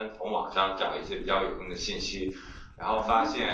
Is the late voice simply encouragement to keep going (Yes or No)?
Yes